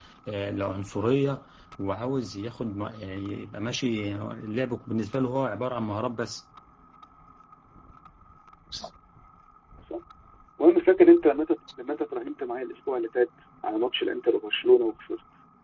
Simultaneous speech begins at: none

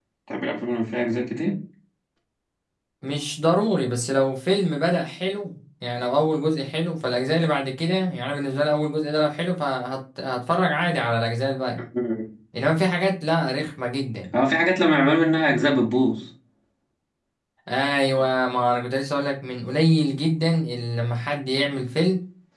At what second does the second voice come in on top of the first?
none

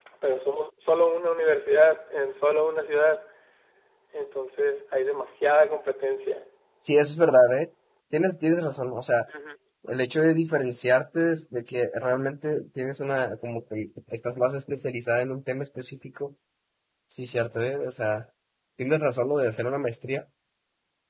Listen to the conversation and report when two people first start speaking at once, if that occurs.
none

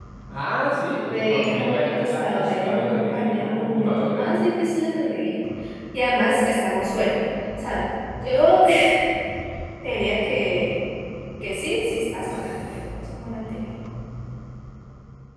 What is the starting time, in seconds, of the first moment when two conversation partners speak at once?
1 s

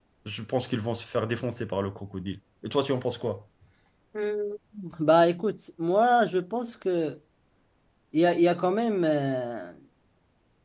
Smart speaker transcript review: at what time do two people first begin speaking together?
none

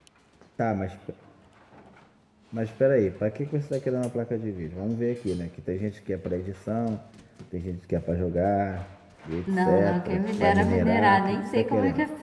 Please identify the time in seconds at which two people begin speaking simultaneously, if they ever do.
9 s

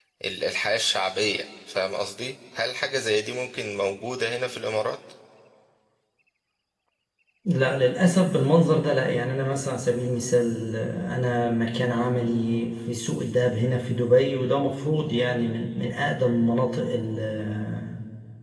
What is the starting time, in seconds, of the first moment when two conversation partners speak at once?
none

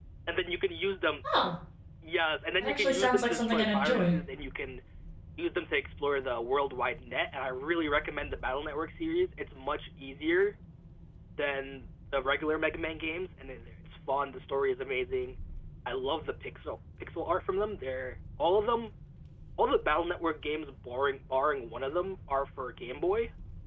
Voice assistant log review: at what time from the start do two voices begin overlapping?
3 s

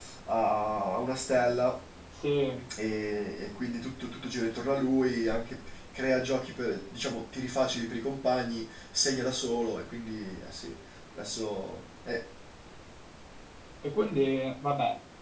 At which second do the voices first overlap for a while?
none

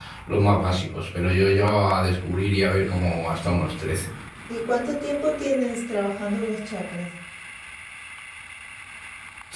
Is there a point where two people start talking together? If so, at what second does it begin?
none

